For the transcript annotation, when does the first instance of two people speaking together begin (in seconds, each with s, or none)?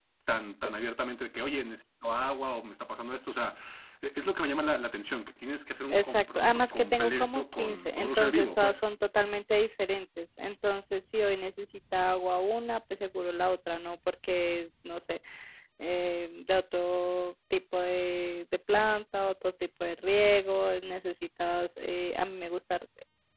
5.9 s